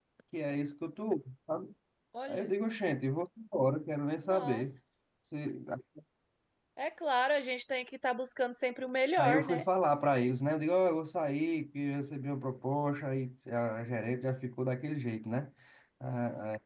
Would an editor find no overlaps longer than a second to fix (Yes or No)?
Yes